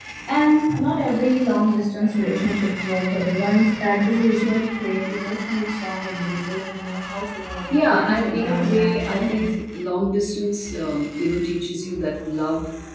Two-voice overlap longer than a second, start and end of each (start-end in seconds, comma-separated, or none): 7.7-9.6